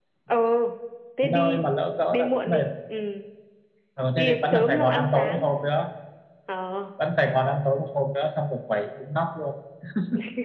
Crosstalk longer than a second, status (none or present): present